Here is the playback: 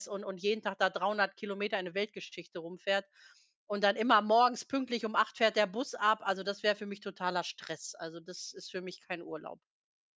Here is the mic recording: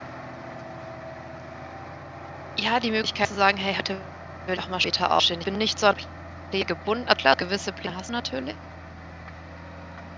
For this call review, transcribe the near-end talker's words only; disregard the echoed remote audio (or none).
ja, die Möglichkeit zu sagen: „Hey, heute will ich auch mal später aufstehen.“ Ich bin nicht so an Pläne gebunden. Klar, gewisse Pläne hast du natürlich,